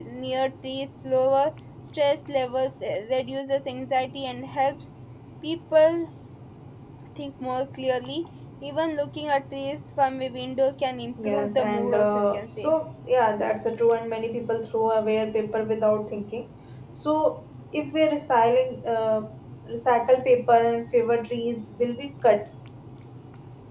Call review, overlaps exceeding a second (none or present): present